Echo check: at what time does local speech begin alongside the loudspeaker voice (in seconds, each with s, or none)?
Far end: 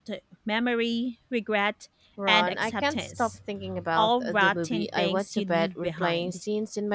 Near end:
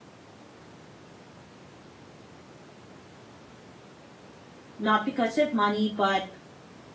4.8 s